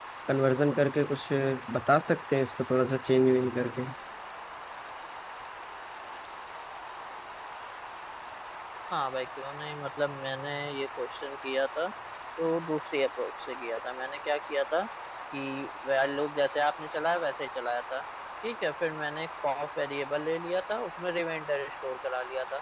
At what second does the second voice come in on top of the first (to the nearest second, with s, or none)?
none